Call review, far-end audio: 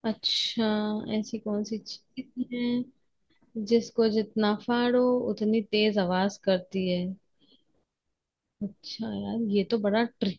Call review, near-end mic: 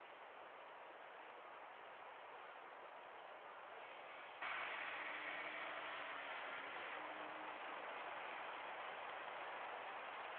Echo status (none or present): none